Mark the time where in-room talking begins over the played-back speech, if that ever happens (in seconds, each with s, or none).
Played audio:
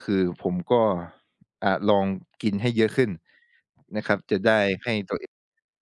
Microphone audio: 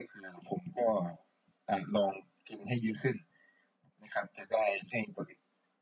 none